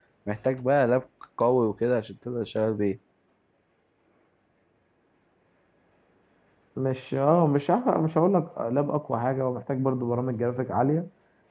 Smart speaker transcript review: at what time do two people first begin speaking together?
none

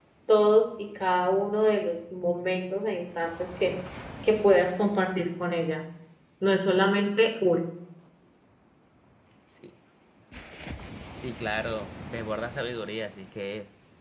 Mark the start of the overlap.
none

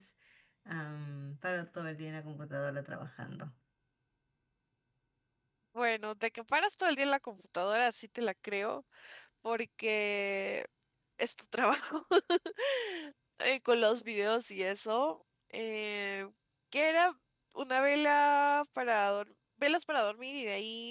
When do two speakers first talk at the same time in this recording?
none

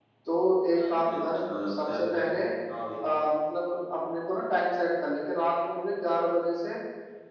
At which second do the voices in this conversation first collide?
0.8 s

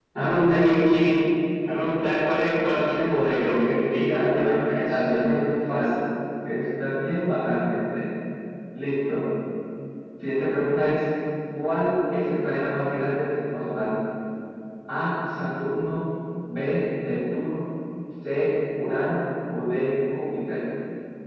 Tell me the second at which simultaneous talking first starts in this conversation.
4.1 s

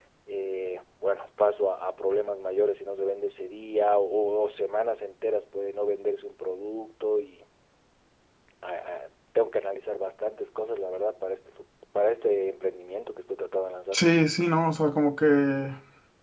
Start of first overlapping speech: none

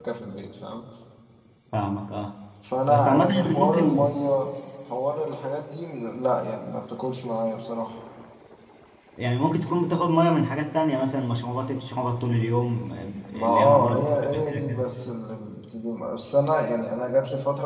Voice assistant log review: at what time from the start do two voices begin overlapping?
2.9 s

